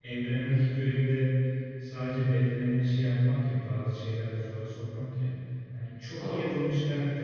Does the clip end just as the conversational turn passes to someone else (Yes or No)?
No